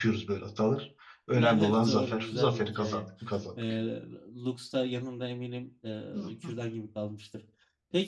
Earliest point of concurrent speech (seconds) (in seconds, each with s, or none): 1.3 s